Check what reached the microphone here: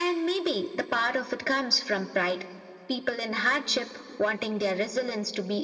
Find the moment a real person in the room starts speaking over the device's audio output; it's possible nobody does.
none

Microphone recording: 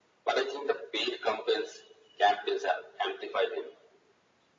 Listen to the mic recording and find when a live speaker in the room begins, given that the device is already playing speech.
none

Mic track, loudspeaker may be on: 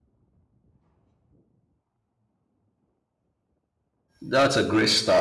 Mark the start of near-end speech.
4.2 s

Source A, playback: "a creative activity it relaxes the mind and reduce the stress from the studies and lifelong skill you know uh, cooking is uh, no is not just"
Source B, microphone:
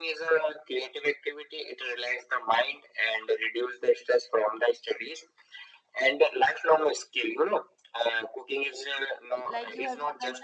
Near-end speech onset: 9.4 s

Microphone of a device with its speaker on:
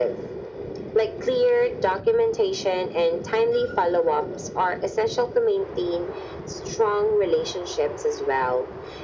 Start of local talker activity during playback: none

